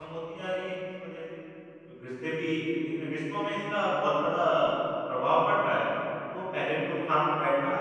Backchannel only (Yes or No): Yes